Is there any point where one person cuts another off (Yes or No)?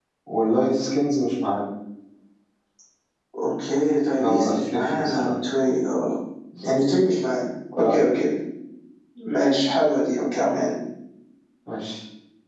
Yes